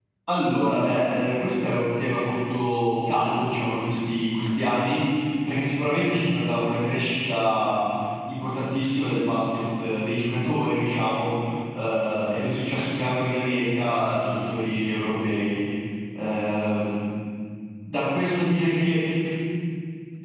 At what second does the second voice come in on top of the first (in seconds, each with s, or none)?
none